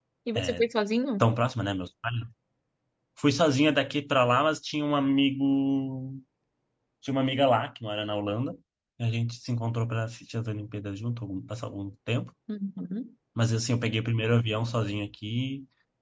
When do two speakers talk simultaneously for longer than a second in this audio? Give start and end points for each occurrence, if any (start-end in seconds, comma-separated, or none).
none